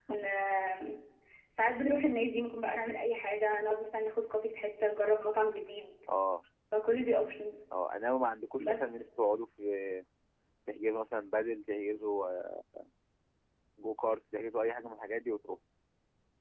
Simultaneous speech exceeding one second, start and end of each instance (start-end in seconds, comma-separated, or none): none